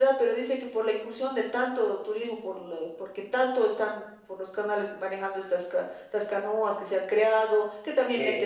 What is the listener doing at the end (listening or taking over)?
listening